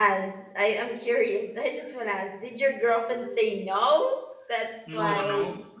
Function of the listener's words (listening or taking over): taking over